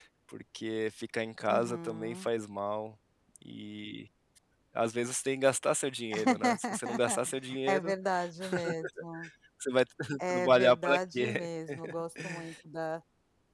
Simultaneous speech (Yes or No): Yes